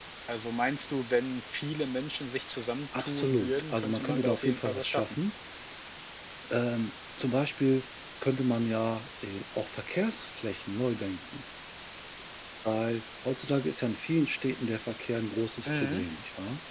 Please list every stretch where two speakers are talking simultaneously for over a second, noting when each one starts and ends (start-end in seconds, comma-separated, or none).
3.0-5.2